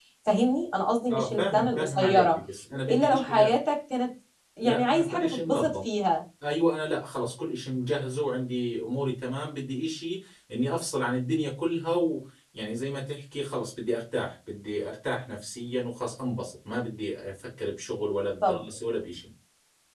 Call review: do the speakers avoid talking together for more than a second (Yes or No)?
No